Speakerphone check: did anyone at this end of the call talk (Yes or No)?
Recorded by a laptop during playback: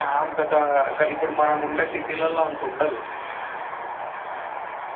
No